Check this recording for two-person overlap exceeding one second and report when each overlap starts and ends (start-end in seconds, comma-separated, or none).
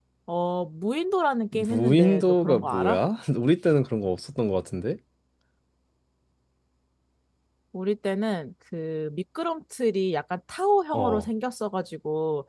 1.5-3.0